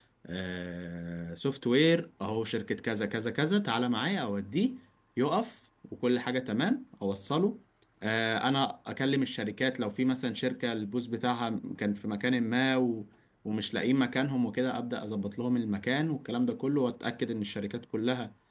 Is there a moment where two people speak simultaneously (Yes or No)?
No